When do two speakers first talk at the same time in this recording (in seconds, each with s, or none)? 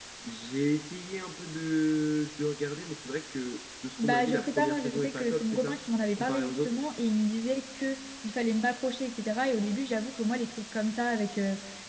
4.0 s